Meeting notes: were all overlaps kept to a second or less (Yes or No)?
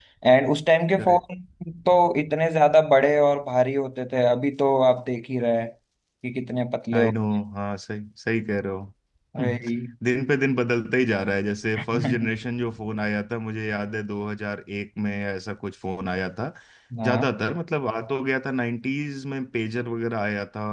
Yes